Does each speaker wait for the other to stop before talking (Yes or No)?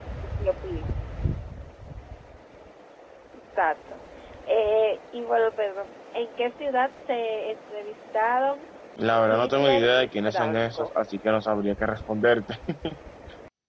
No